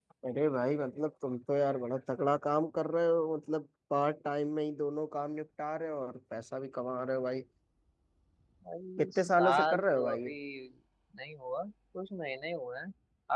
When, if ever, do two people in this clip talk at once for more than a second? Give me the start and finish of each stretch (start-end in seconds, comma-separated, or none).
9.0-10.3